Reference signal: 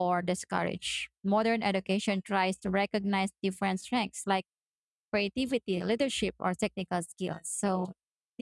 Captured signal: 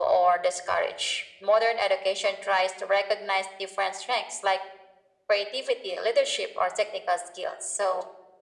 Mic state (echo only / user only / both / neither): echo only